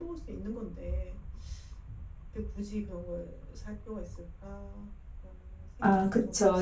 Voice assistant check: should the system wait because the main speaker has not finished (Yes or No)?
No